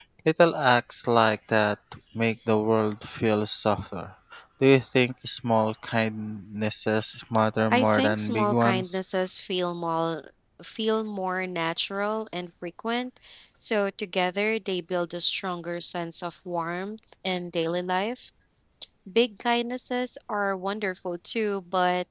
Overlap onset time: 7.7 s

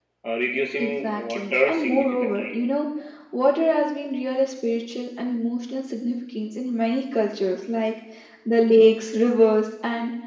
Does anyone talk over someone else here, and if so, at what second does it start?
0.8 s

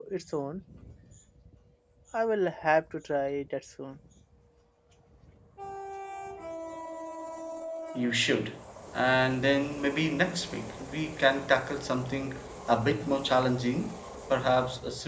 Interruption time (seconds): none

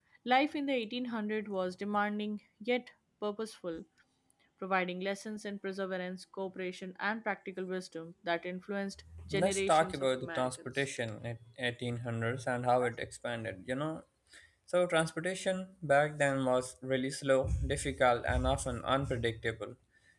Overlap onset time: 9.1 s

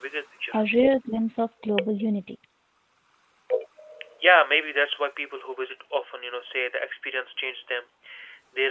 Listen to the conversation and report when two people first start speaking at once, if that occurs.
none

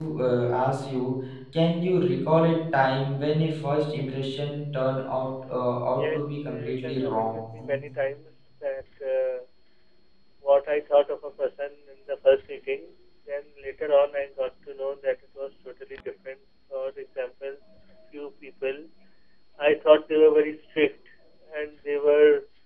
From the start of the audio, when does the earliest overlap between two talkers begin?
6.0 s

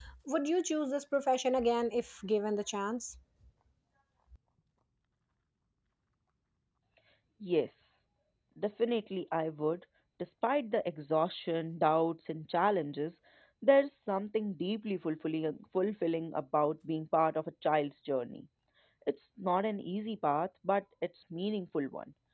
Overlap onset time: none

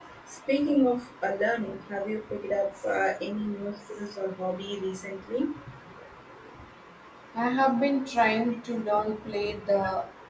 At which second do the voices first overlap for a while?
none

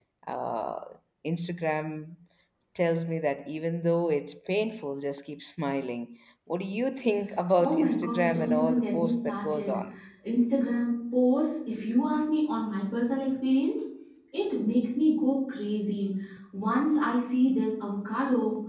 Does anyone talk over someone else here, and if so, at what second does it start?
7.6 s

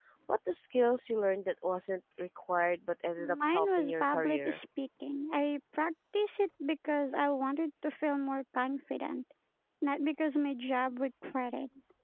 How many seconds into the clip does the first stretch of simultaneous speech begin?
3.2 s

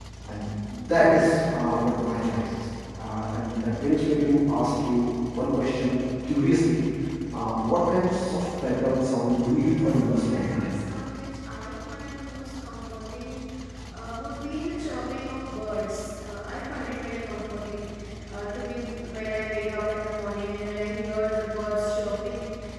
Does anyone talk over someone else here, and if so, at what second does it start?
9.4 s

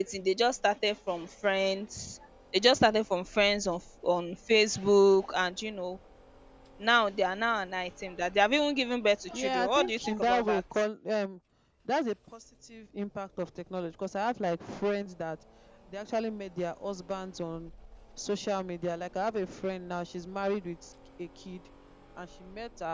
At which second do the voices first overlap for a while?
9.3 s

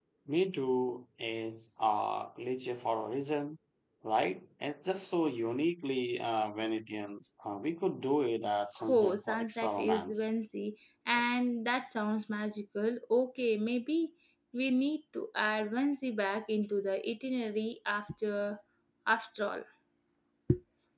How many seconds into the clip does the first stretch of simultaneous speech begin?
8.8 s

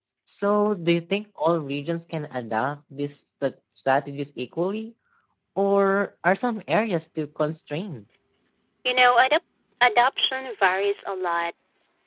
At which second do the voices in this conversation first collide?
none

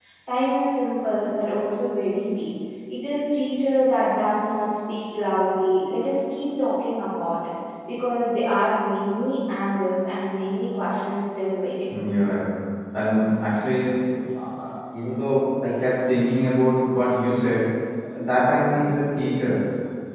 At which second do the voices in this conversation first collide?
none

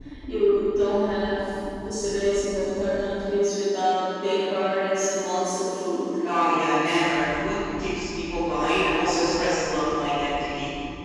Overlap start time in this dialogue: none

